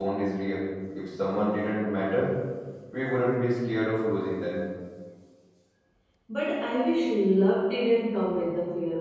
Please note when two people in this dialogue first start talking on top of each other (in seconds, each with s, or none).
none